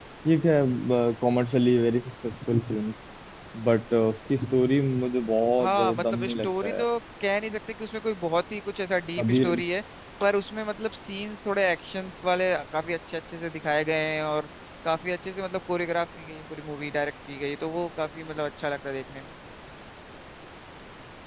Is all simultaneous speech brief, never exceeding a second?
No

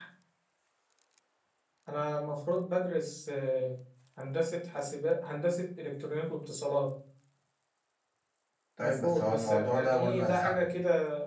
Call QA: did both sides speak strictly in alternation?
No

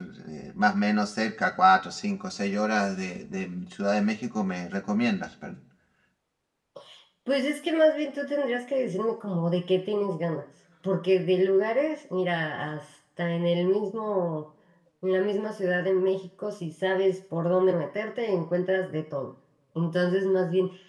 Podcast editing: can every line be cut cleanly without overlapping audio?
Yes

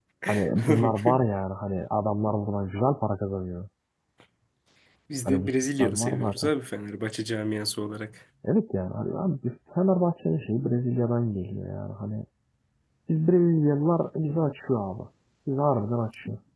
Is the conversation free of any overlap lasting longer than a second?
No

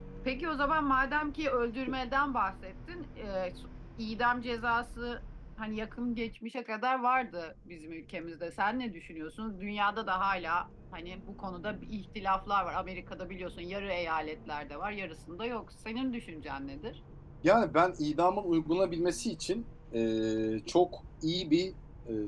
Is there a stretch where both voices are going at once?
No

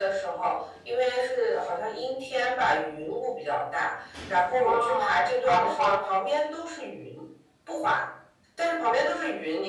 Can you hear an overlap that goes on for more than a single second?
Yes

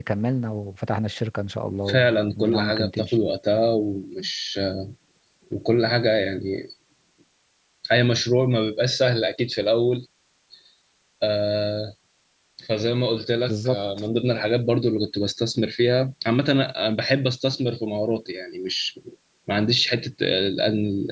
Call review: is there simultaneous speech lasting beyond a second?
Yes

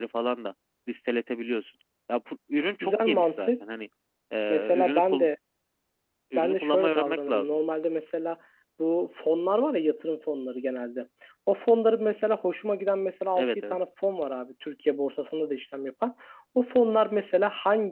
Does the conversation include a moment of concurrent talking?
Yes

